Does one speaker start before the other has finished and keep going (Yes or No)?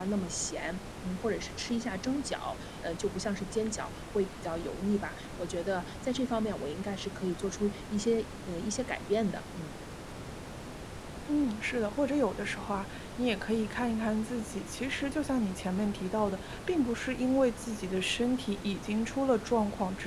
No